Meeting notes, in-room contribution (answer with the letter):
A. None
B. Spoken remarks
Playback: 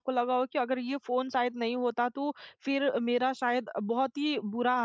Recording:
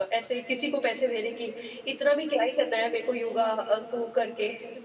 B